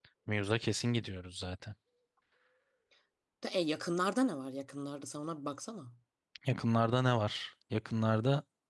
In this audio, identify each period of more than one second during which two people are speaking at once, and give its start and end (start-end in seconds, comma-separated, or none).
none